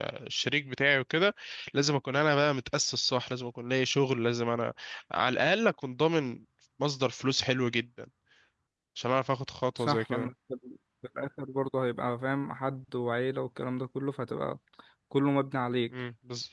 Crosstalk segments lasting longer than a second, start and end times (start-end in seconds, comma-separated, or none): none